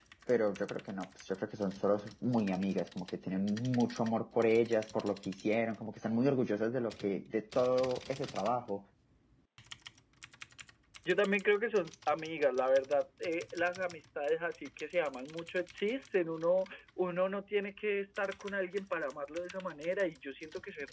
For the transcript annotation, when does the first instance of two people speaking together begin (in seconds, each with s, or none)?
none